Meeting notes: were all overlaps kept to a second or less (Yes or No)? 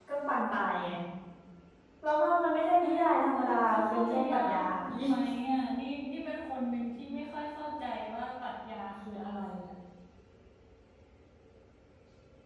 No